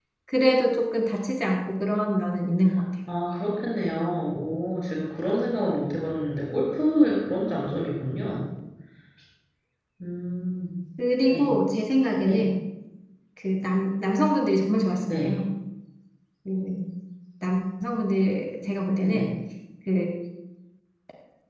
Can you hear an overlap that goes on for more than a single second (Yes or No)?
No